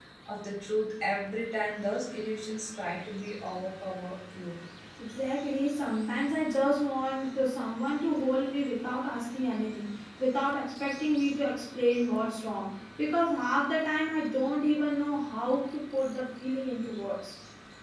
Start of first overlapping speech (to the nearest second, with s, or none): none